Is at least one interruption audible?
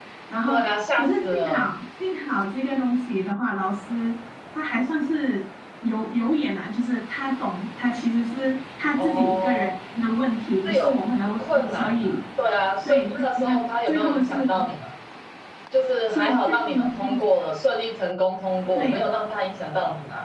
Yes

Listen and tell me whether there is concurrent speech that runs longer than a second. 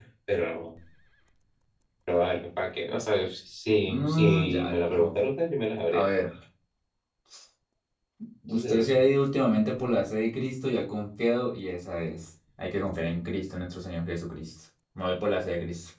Yes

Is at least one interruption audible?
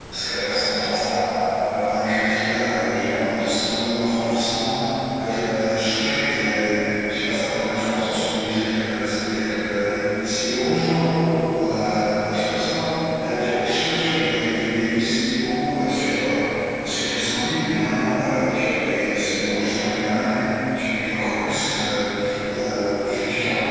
No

